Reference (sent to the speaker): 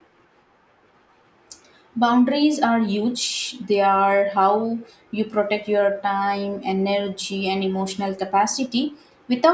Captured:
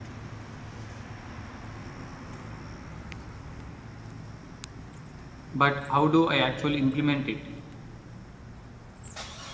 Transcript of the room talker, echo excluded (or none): But how do I actually implement it?